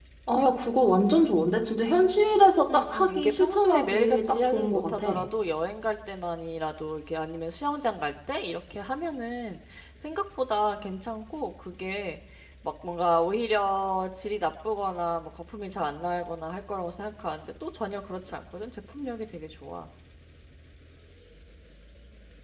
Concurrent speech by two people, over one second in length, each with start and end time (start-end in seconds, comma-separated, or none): 2.7-5.1